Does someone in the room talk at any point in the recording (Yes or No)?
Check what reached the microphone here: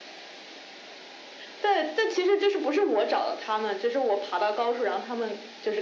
No